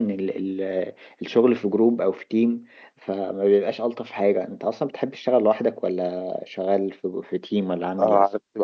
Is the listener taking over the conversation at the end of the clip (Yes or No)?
Yes